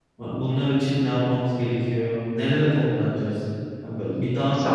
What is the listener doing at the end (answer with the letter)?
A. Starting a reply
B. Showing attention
A